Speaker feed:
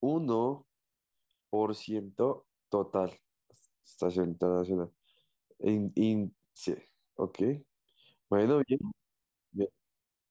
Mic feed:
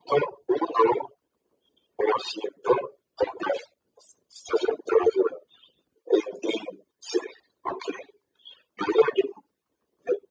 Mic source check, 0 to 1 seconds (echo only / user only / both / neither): echo only